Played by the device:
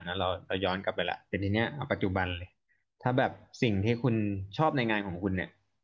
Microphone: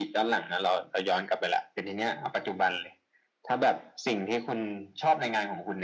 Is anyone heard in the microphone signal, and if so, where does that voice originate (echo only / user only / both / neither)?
echo only